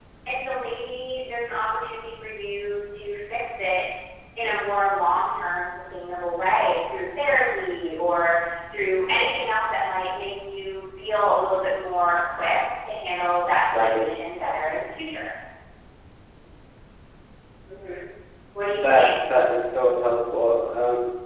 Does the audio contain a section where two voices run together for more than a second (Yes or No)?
No